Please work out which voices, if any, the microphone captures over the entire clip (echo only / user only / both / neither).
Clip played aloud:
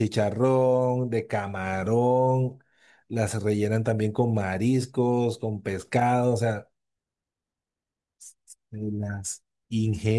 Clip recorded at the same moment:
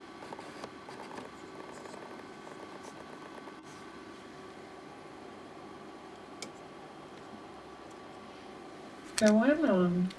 user only